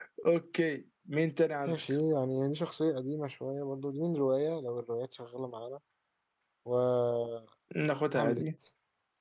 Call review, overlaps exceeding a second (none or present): none